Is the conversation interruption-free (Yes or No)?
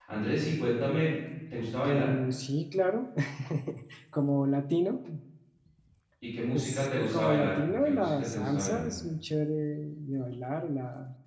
No